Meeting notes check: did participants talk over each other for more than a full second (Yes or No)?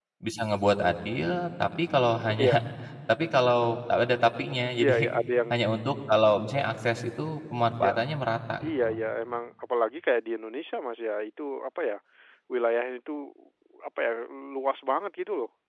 No